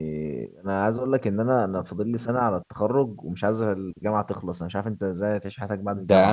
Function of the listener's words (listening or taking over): taking over